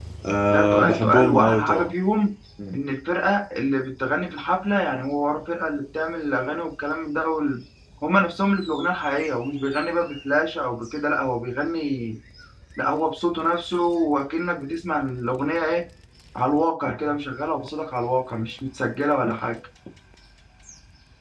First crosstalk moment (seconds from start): 1 s

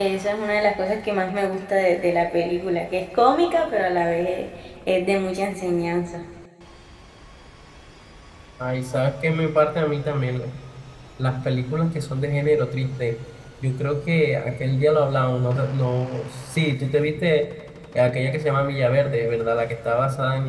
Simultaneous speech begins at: none

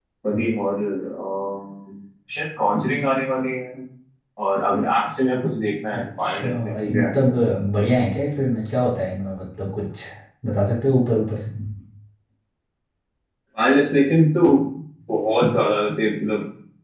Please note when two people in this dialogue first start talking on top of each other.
6 s

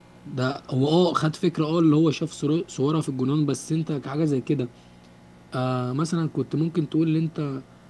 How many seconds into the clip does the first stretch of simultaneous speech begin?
none

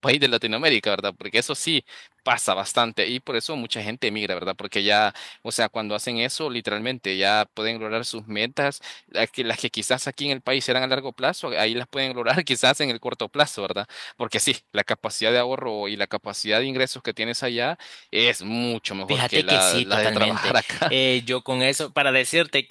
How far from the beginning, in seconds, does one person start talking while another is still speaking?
19 s

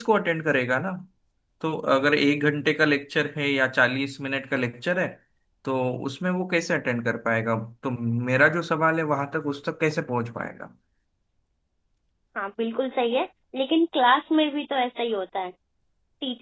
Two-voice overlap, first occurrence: none

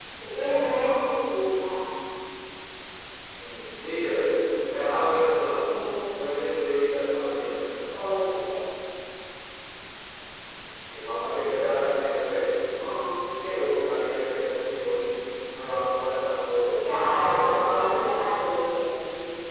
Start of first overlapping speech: 17 s

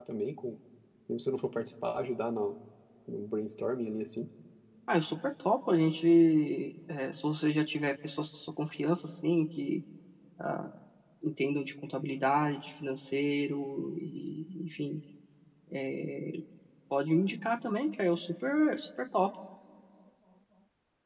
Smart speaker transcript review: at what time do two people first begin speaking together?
none

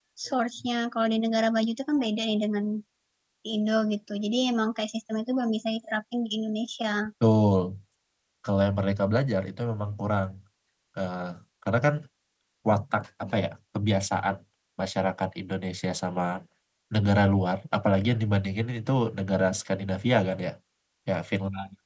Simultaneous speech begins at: none

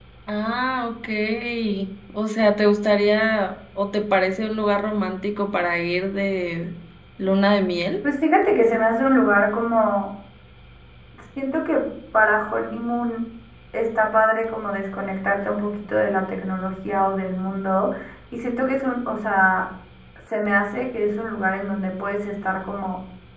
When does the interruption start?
none

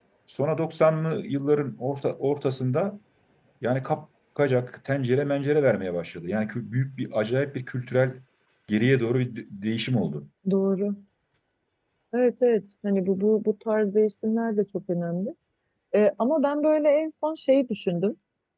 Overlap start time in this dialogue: none

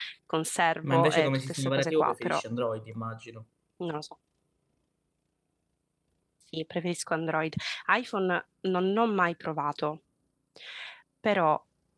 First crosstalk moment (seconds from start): 1 s

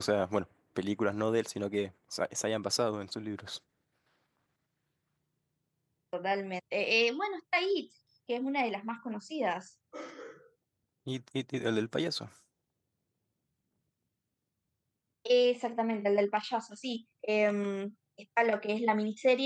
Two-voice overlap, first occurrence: none

